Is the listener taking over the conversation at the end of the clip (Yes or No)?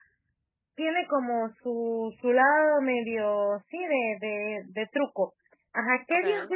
No